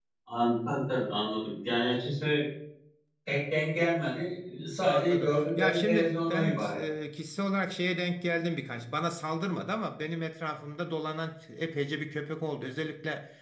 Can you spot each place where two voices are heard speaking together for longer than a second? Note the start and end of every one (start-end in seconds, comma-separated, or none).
4.9-6.8